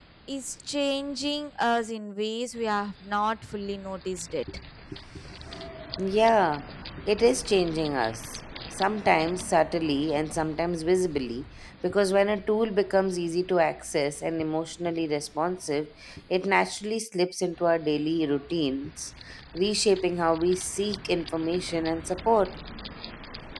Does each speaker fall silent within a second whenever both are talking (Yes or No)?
Yes